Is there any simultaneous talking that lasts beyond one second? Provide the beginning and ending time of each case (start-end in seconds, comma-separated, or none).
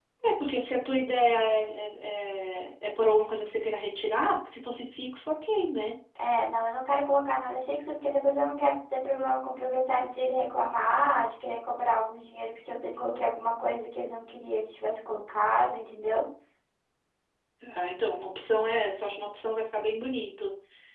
none